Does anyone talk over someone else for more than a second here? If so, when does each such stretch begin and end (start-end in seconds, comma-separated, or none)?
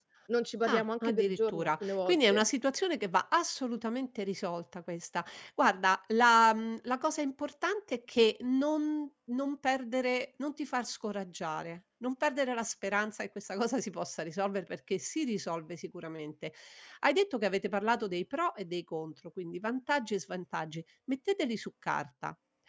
0.7-2.5